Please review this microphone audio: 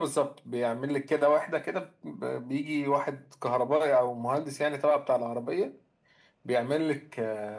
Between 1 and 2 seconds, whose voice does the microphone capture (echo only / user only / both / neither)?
echo only